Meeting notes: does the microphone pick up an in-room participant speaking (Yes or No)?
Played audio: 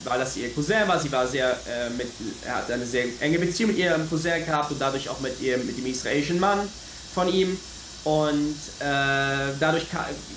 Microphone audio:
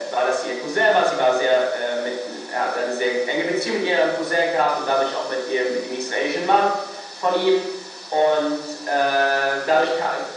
No